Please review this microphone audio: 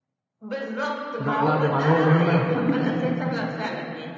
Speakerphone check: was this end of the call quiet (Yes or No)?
No